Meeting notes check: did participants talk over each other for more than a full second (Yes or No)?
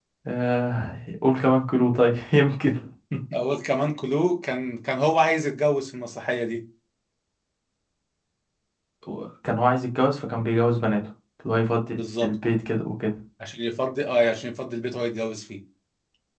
No